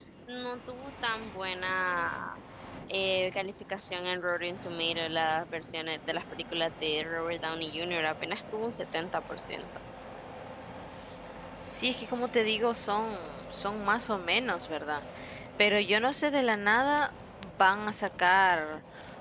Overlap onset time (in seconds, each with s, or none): none